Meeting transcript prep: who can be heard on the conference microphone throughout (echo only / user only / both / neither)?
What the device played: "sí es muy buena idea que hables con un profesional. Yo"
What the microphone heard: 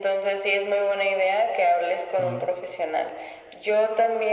both